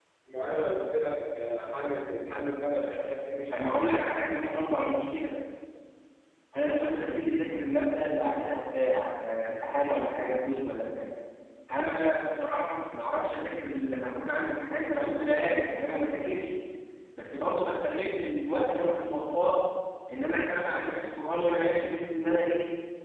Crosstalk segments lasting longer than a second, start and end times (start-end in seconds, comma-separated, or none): none